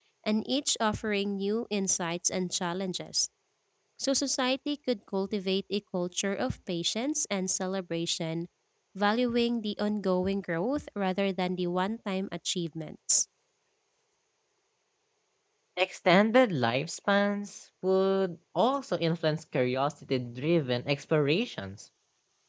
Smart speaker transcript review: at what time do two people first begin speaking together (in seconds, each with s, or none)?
none